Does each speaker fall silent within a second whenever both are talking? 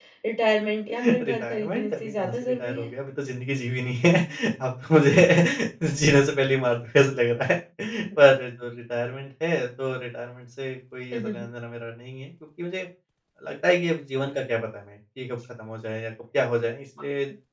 No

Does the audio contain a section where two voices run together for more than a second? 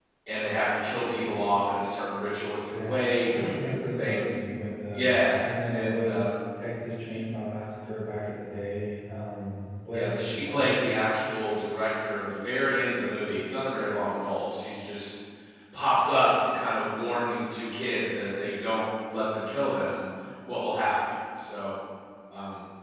Yes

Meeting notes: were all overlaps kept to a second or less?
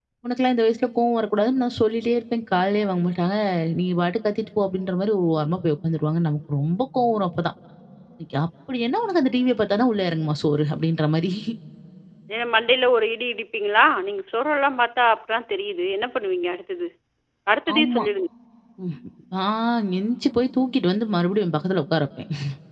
Yes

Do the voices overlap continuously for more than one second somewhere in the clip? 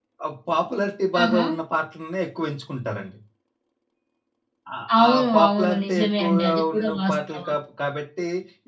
Yes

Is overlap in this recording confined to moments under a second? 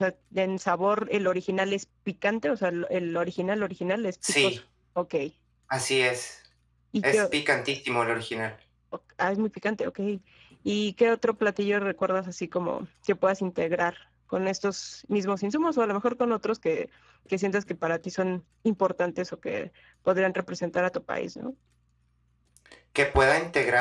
Yes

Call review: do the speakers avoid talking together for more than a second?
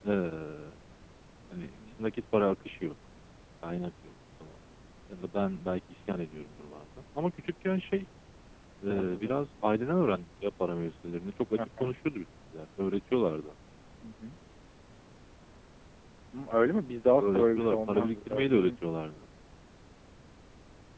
No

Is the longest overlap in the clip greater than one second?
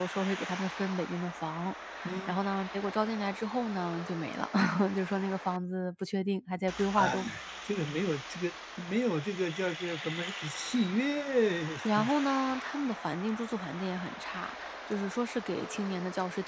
No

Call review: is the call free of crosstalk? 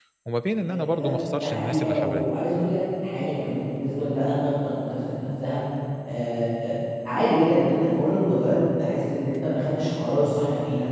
No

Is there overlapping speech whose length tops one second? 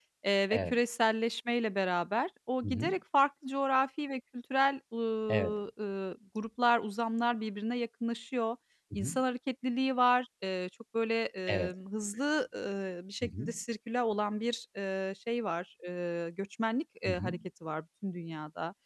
No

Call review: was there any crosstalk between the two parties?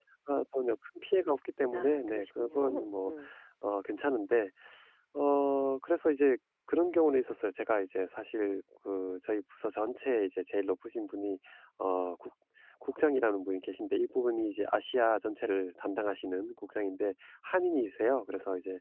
Yes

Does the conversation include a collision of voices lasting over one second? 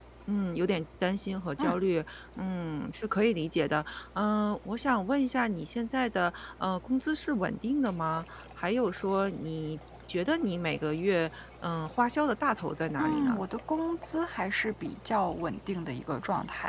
No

